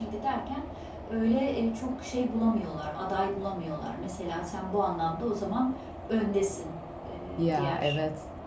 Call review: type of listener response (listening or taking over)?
listening